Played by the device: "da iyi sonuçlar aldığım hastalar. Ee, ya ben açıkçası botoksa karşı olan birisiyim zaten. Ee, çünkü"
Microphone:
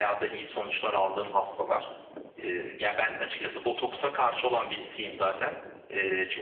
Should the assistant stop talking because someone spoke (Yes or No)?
No